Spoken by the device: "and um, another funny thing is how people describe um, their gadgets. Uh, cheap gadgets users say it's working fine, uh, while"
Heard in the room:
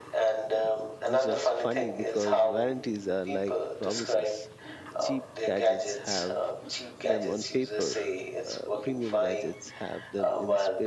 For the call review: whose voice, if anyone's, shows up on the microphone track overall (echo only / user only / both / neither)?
both